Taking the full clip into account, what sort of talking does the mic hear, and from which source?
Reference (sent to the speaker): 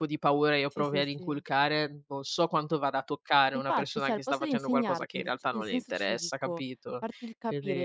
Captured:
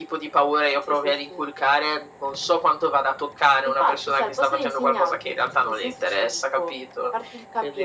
echo only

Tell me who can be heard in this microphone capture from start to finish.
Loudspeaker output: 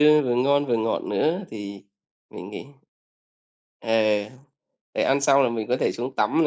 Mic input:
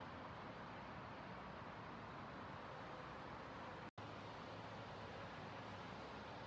neither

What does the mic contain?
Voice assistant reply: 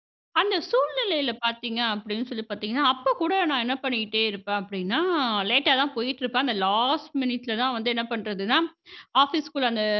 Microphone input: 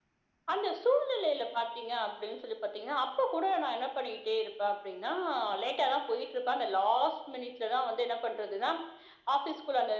echo only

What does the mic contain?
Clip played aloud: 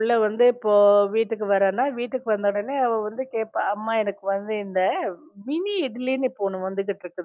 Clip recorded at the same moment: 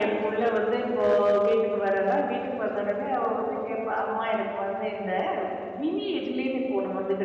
echo only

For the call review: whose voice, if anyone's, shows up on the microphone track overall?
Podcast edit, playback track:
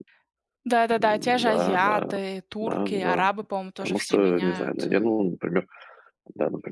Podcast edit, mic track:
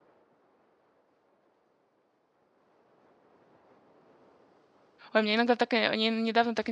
user only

